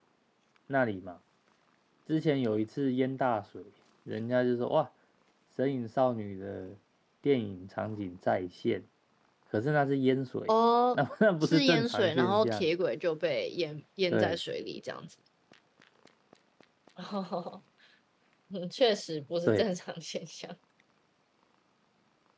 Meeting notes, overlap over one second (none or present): present